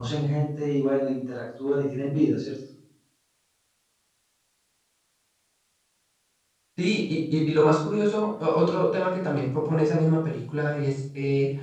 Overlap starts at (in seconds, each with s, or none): none